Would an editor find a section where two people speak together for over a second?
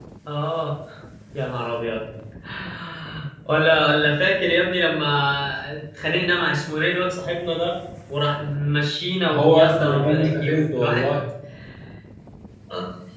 Yes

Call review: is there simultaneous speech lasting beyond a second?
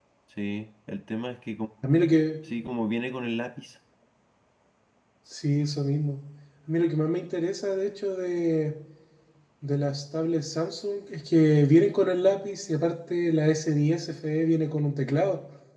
No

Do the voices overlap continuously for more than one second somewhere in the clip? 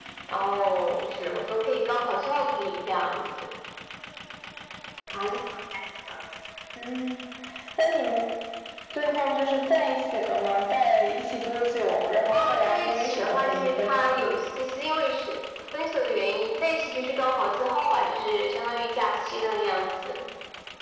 Yes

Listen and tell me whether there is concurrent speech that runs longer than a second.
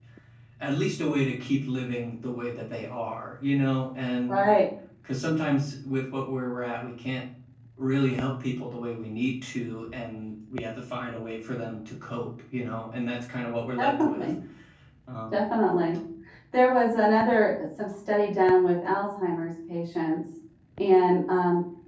No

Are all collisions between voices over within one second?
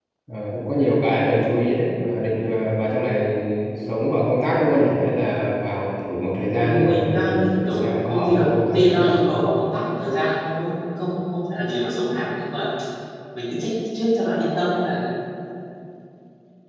No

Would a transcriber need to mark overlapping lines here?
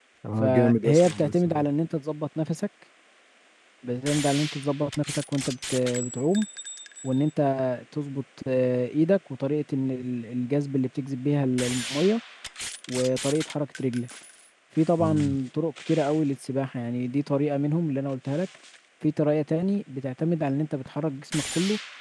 Yes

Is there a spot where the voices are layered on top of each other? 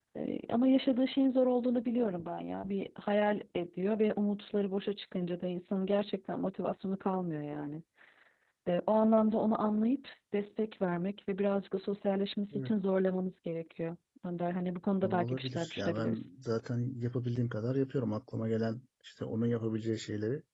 Yes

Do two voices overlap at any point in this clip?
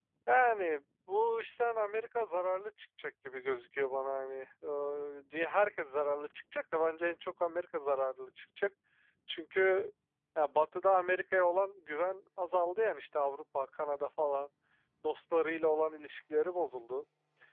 No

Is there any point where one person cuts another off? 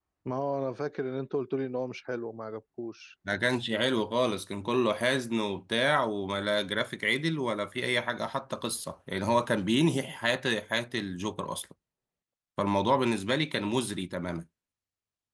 No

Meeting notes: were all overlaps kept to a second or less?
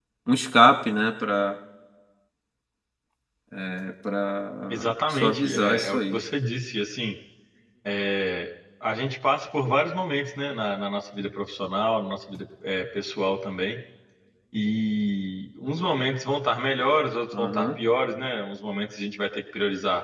No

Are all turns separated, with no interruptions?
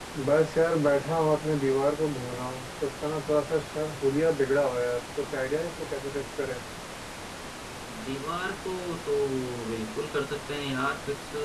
Yes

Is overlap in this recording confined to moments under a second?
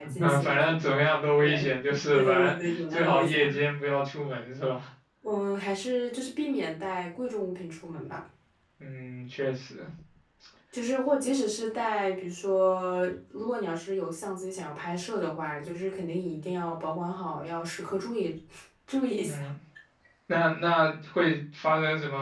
No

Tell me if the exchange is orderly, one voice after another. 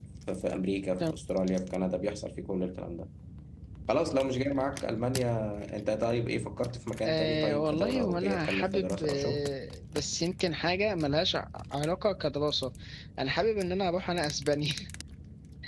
No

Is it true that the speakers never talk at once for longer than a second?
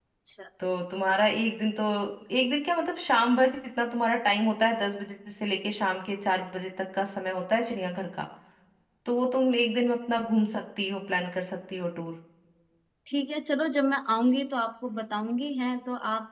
Yes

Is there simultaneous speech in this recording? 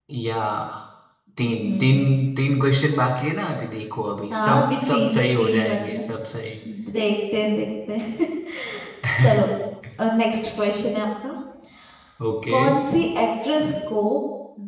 Yes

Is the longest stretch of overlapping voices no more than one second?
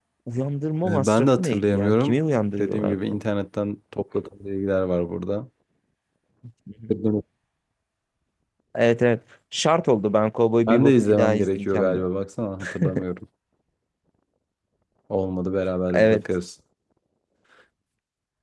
No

